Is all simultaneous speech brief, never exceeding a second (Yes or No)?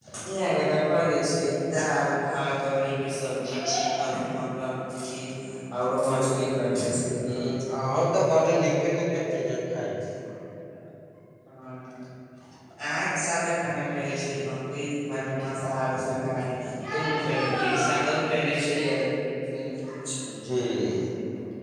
Yes